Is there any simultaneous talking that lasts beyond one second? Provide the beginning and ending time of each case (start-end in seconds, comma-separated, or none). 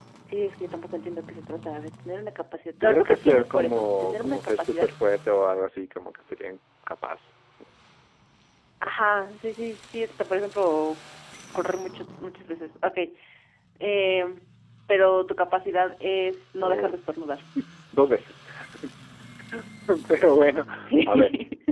2.8-4.9